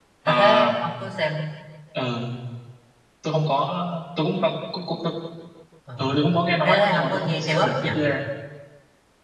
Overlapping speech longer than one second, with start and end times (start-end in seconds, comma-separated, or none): 6.6-7.9